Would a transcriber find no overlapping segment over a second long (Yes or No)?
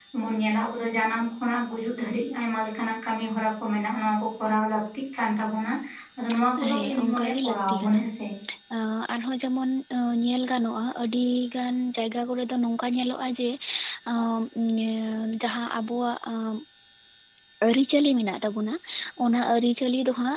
No